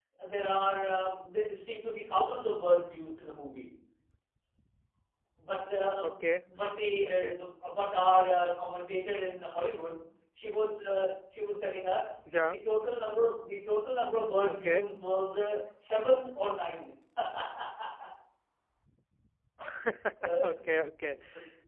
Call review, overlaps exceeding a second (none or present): none